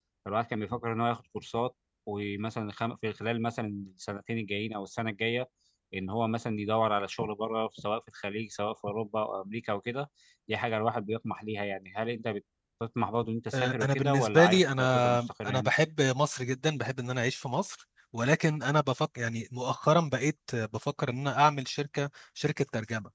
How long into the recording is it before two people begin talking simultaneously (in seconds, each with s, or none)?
13.5 s